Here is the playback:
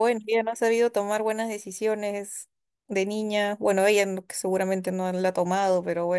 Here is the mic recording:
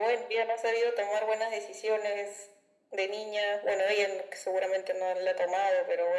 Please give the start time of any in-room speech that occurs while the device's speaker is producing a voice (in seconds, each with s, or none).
none